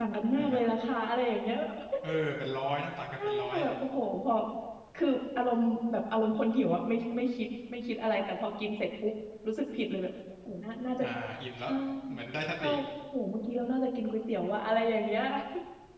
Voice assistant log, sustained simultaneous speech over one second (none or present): none